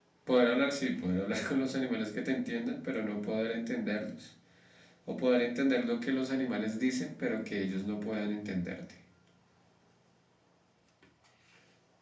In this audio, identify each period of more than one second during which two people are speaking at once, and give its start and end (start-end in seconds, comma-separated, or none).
none